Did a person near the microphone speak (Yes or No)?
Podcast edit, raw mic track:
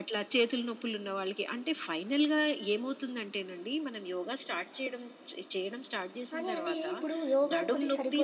Yes